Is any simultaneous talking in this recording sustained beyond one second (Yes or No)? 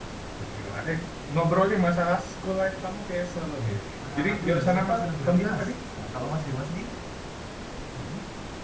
Yes